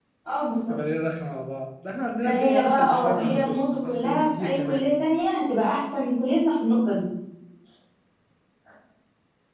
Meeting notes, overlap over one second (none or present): present